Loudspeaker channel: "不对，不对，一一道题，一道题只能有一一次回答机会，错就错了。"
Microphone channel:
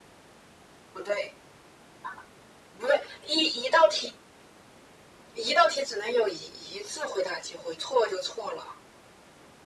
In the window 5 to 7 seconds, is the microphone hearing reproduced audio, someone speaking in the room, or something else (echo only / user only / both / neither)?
echo only